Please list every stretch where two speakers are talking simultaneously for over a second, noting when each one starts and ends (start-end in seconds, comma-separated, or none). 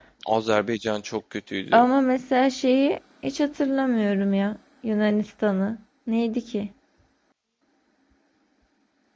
none